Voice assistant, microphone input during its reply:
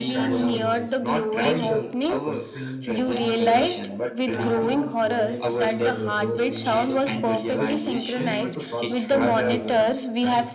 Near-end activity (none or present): present